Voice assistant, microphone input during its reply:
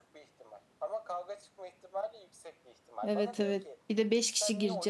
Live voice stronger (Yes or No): Yes